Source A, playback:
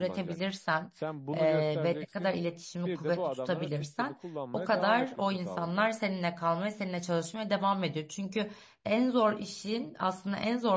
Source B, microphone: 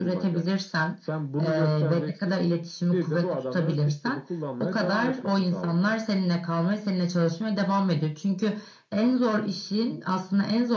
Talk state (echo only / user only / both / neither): echo only